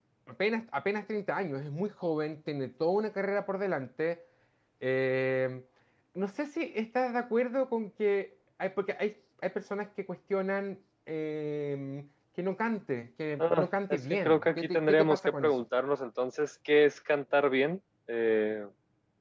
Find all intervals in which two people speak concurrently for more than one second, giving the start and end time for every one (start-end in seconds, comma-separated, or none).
13.4-15.5